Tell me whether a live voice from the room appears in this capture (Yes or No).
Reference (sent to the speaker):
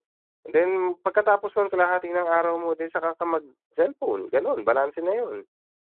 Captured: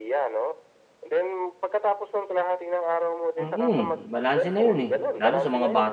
Yes